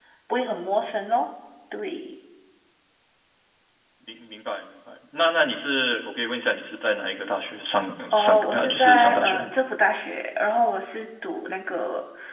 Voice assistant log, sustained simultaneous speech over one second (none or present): present